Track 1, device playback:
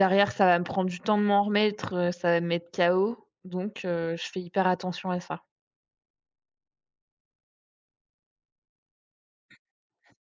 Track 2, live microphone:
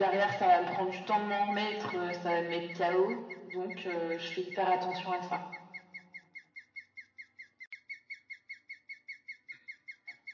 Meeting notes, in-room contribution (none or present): none